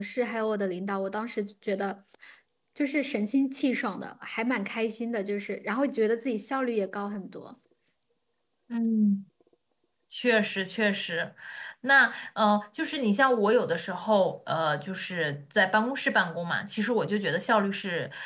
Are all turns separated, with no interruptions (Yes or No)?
Yes